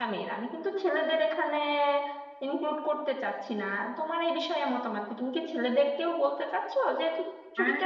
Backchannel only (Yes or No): No